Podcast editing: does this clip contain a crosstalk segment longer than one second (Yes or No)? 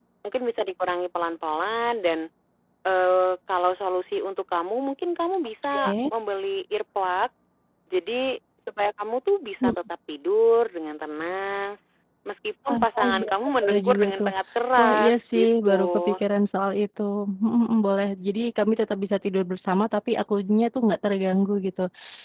Yes